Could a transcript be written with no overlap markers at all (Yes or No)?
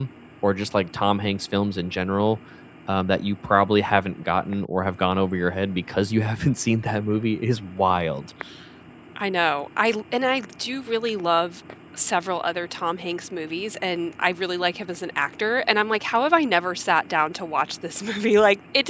Yes